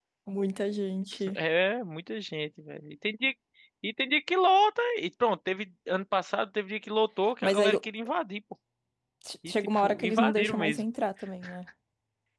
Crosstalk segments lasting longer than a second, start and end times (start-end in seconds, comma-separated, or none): 9.4-10.8